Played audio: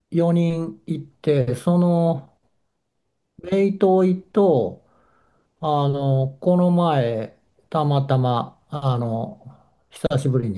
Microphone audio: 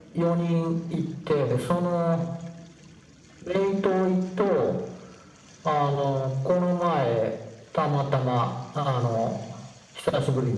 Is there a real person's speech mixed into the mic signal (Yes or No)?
No